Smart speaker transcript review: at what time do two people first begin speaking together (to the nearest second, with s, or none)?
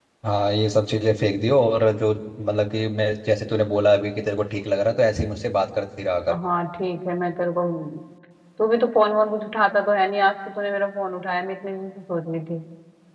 none